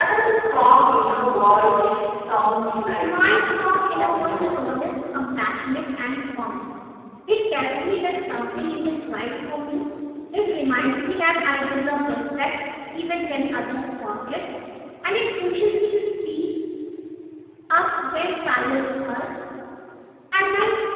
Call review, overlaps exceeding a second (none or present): present